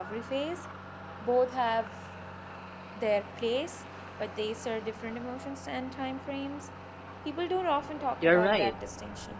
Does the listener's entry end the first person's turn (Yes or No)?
Yes